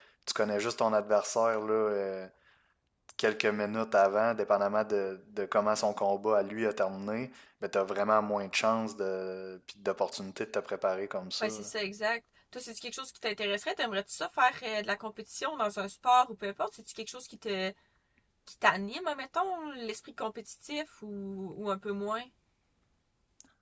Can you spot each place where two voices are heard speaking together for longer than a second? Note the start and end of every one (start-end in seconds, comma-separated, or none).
none